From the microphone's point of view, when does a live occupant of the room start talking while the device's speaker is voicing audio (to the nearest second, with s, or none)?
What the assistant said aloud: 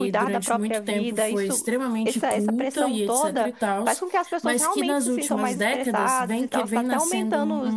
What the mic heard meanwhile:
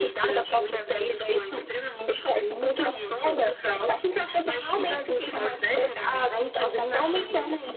none